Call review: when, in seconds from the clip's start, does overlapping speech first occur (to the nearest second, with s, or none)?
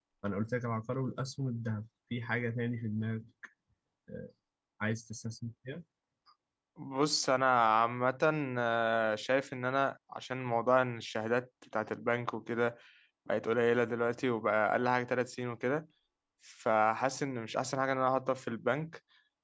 none